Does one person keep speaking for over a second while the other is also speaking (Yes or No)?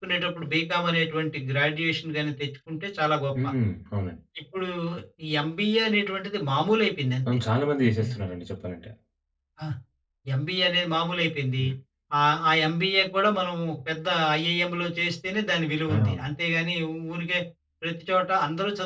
No